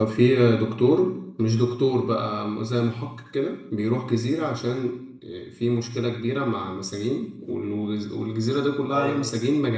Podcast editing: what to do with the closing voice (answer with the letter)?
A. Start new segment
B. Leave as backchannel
B